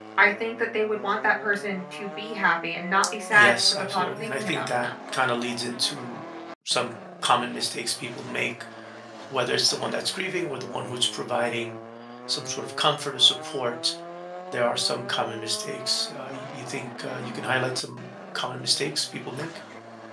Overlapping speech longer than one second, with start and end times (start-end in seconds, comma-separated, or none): 3.3-4.9